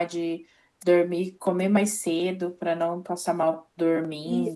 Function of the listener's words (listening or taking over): taking over